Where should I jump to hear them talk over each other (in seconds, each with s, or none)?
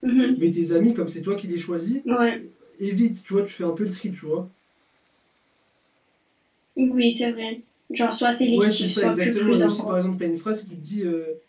8.5 s